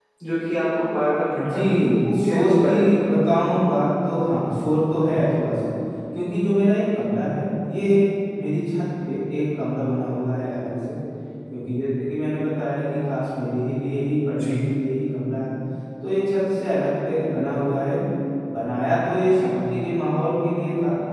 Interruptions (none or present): present